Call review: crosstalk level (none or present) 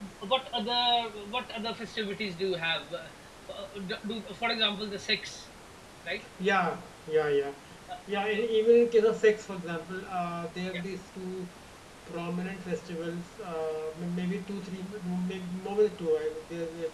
none